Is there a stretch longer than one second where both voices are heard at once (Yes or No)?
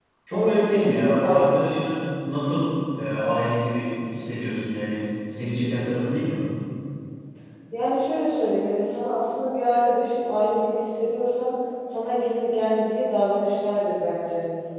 Yes